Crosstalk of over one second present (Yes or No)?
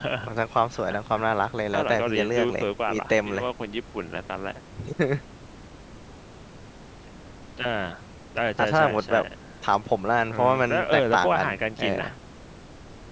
Yes